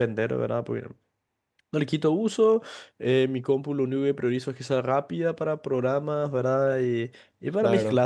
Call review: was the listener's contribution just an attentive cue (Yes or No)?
Yes